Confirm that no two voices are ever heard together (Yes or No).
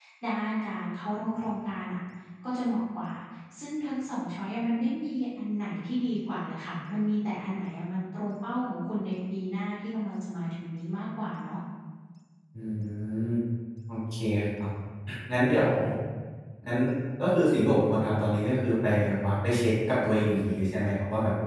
Yes